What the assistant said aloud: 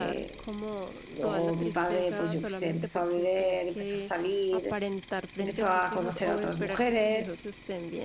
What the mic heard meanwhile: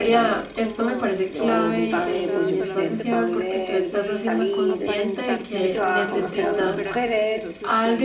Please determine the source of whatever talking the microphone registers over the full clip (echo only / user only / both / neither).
both